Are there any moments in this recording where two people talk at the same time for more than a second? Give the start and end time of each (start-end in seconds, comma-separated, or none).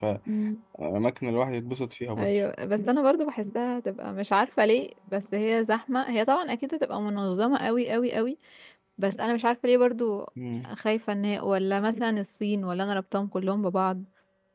none